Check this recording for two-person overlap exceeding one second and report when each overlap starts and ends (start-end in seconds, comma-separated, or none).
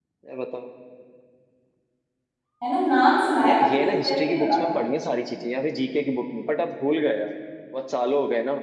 3.4-4.7